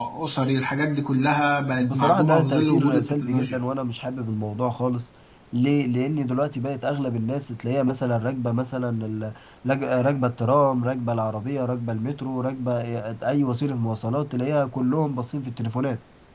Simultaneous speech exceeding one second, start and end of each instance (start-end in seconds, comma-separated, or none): 1.8-3.6